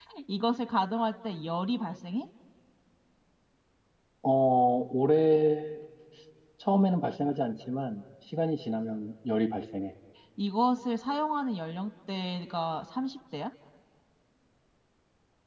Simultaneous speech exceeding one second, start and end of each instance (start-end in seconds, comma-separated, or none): none